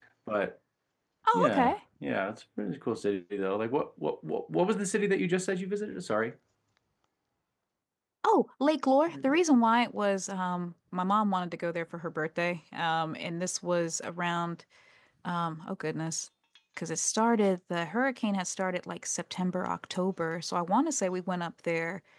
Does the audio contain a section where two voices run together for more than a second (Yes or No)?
No